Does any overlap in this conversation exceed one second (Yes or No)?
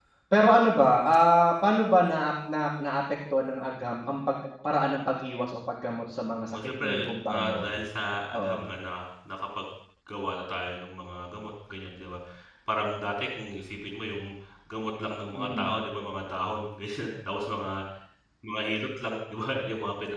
Yes